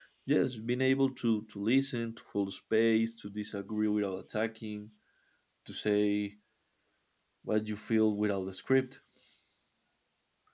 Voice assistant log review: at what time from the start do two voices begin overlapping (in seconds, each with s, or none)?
none